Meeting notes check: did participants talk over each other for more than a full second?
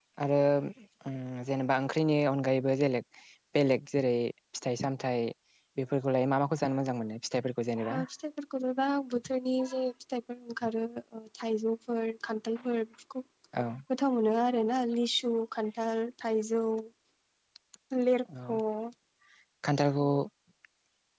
No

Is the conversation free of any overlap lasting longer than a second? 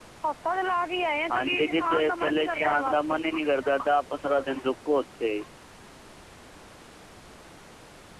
No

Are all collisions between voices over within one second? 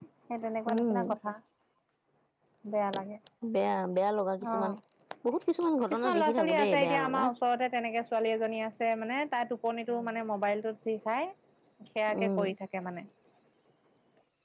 No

